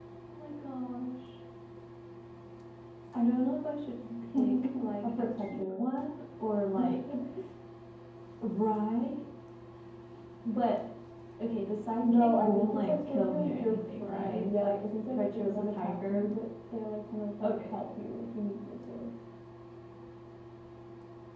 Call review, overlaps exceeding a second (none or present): present